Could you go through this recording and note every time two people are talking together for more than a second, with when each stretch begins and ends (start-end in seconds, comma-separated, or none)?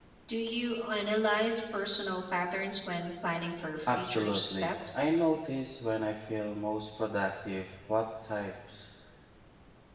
3.9-5.1